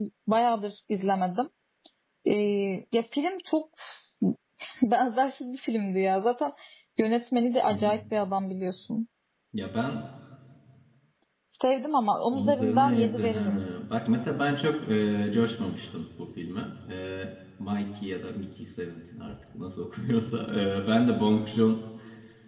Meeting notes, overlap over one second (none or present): present